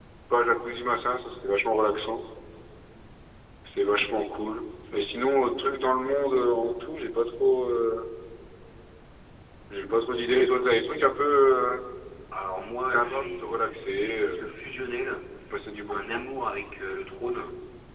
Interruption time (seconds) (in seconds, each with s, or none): 12.8 s